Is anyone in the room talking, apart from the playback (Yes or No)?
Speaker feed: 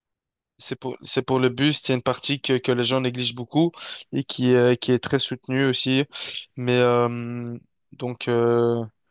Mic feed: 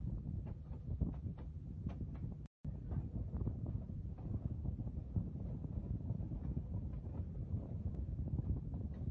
No